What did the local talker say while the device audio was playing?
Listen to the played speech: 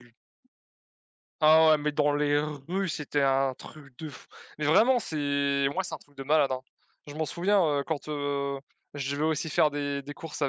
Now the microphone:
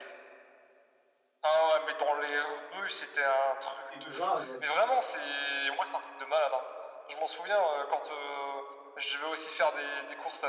C'est grave.

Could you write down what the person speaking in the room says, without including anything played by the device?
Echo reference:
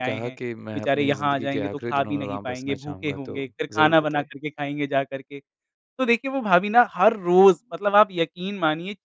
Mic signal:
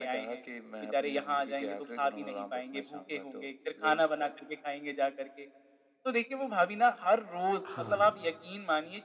हाँ।

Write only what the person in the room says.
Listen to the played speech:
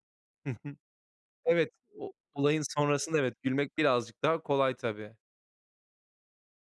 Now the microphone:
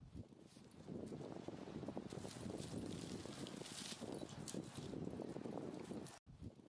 none

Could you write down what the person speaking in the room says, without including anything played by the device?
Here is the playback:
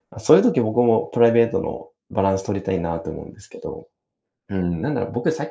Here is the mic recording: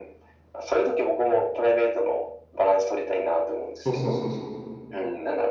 そう、そうそうそうそう。

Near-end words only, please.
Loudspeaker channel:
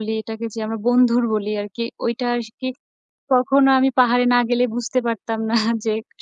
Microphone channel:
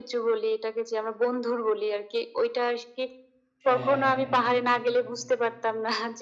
হ্যাঁ।

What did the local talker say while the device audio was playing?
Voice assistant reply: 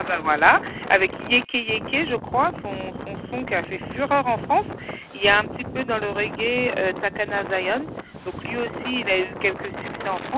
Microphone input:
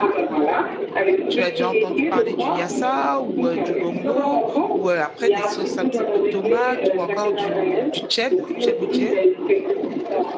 tu as déjà entendu parler du yassa ou, heu, du gombo ou, heu, après des sauces un petit peu tomates ou encore du du thieb thiéboudiène?

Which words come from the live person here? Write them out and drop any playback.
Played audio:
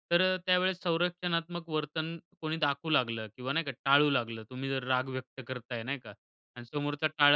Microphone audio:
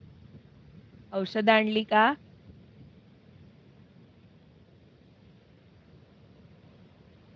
औषधं आणली का?"

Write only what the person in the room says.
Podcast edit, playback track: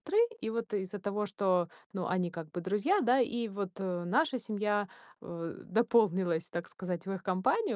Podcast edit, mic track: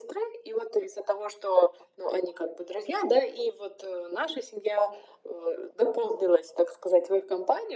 none

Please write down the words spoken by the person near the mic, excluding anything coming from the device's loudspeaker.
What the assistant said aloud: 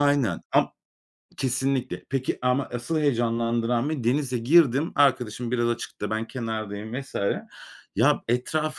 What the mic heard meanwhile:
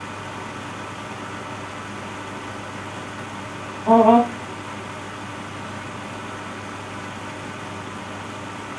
Oh!

